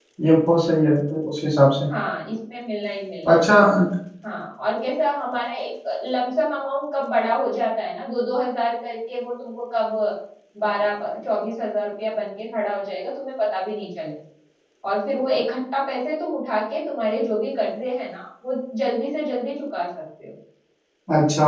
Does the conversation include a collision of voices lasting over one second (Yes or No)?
No